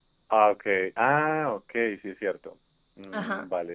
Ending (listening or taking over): taking over